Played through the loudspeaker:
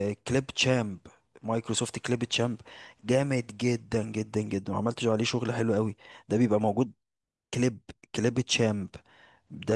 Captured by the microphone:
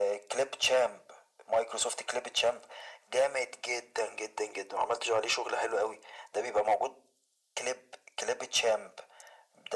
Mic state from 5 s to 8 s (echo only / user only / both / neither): echo only